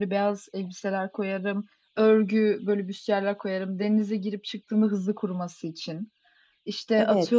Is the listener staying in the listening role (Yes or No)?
Yes